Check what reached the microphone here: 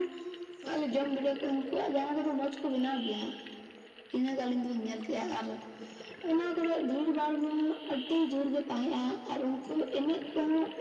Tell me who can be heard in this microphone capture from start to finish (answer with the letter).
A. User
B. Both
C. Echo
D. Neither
C